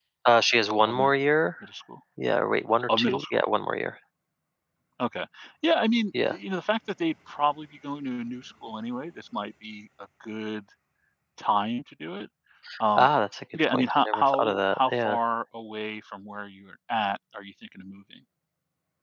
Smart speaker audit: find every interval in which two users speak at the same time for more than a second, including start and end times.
13.7-15.2

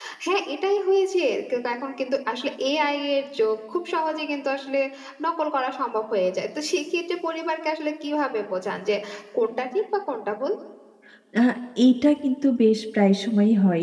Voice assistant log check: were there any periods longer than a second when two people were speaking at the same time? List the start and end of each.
none

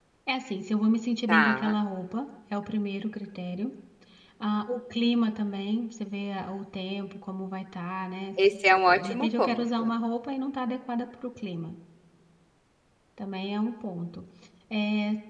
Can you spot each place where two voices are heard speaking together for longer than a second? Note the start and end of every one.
8.7-9.9

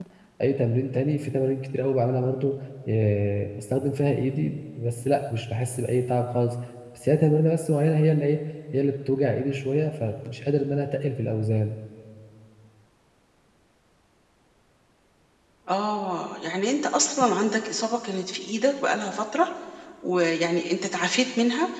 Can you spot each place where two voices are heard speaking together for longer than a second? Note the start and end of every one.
none

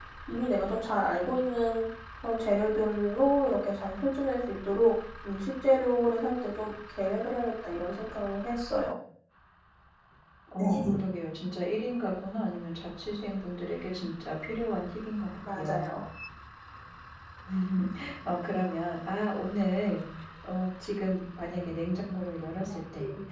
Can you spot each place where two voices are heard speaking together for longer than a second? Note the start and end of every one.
none

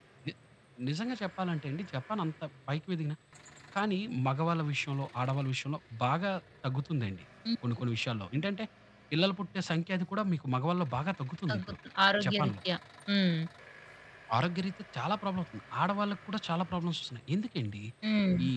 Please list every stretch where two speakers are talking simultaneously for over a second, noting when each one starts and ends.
none

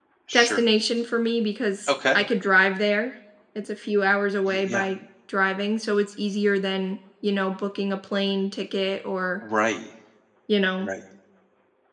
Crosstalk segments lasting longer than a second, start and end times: none

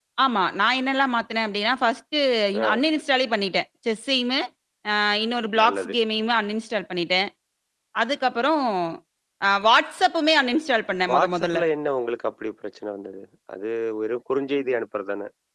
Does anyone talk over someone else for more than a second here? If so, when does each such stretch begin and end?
none

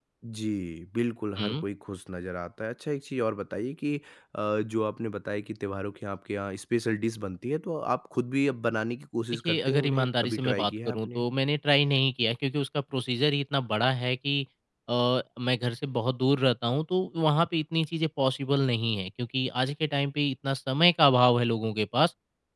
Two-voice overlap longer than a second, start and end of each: 9.4-11.2

